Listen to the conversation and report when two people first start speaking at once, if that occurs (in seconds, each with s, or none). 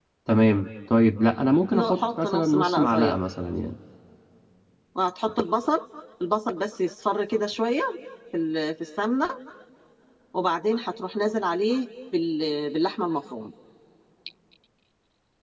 1.7 s